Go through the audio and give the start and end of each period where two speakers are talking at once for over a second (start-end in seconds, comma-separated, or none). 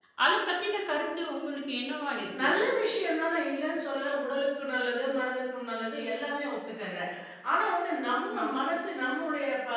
none